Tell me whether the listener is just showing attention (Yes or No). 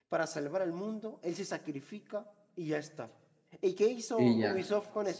Yes